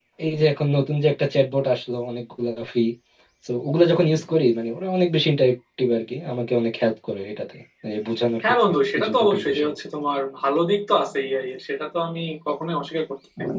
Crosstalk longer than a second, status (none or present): present